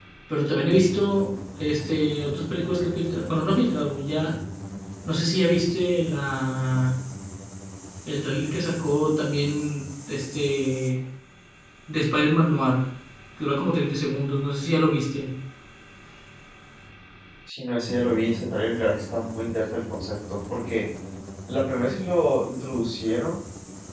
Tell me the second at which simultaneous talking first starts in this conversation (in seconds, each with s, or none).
none